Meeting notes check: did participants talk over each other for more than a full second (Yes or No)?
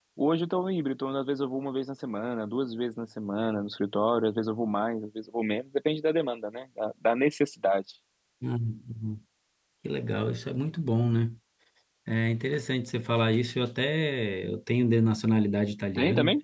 No